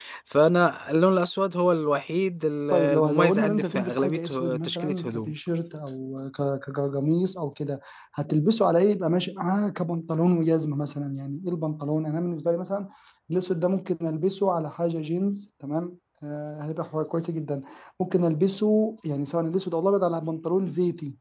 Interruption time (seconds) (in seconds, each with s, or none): 2.7 s